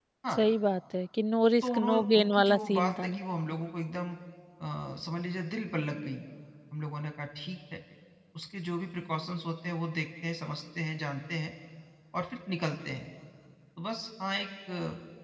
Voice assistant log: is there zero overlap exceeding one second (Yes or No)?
No